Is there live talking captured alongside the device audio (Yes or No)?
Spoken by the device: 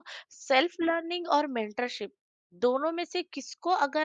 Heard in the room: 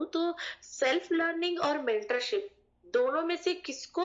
No